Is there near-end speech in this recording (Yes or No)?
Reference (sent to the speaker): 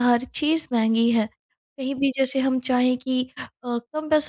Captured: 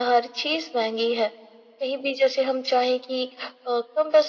No